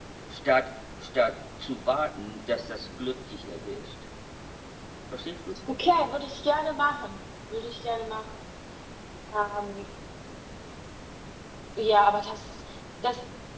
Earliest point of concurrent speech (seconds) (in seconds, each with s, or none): none